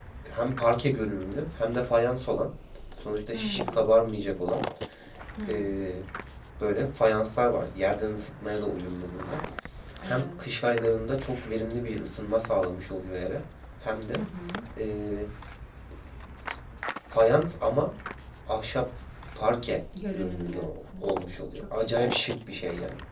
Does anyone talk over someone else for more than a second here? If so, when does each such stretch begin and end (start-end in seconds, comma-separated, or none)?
20.1-22.1